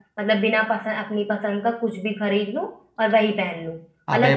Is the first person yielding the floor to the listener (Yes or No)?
No